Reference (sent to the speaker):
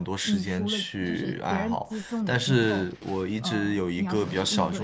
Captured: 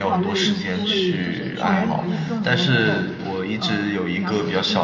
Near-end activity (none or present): present